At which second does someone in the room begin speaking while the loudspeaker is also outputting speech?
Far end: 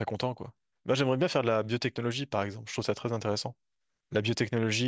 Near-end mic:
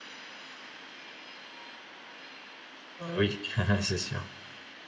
3.0 s

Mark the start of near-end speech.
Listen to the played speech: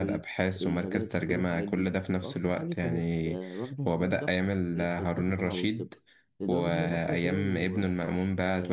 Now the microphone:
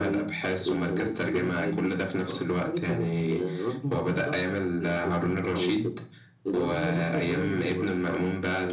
none

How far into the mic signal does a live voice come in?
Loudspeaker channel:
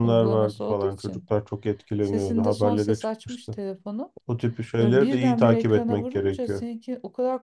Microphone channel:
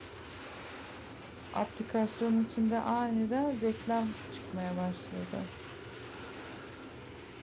1.5 s

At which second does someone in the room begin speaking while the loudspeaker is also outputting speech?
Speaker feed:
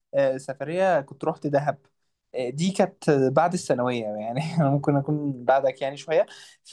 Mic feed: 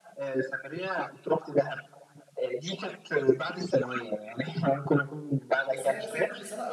5.7 s

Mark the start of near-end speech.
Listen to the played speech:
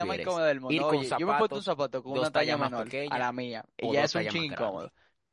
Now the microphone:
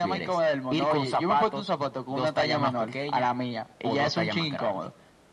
none

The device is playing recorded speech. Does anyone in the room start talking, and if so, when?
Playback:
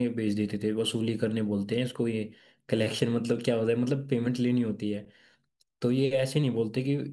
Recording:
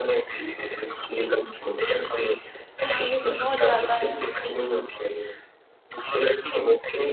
2.8 s

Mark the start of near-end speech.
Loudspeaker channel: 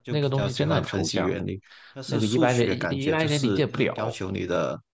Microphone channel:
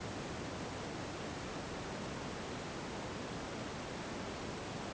none

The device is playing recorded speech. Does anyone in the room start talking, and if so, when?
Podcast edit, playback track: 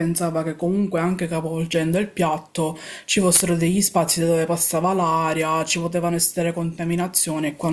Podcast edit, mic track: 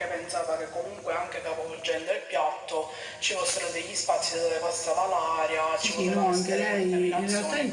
5.7 s

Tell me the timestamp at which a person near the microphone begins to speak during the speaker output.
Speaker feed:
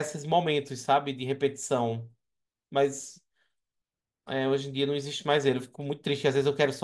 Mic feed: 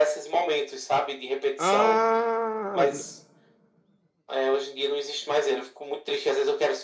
1.6 s

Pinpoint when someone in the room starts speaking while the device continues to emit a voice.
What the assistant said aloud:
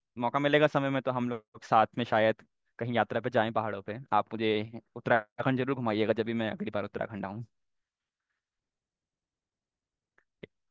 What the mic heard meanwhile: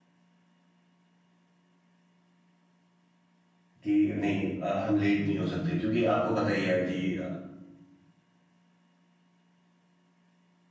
3.8 s

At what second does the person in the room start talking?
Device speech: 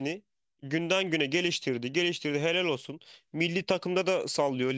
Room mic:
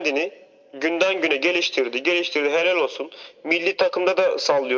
none

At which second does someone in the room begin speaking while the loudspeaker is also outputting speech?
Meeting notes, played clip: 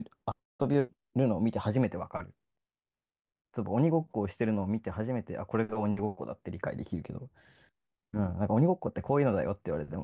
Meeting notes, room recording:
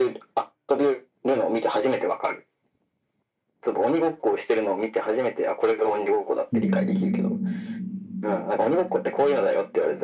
6.5 s

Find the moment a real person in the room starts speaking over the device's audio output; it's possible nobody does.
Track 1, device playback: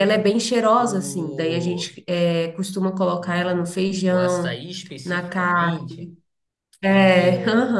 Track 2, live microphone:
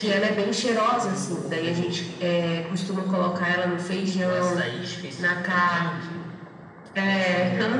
none

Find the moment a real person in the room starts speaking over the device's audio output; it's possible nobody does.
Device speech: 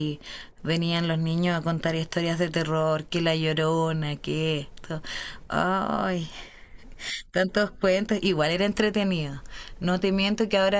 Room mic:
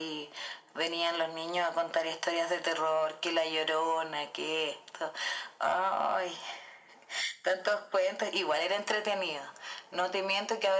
none

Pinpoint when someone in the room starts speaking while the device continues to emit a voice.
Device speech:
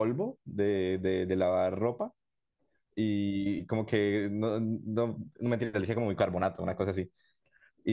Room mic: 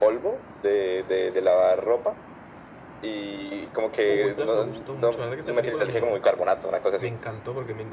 4.0 s

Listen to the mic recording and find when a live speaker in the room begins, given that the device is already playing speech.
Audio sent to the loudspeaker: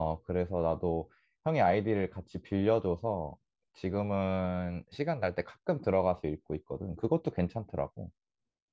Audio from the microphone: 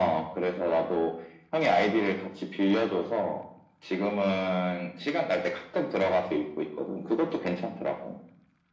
none

